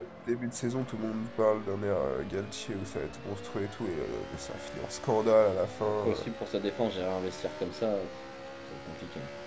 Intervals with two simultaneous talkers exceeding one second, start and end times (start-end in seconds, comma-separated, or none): none